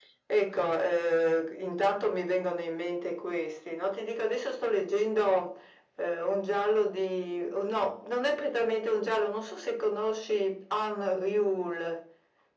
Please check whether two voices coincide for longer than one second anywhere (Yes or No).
No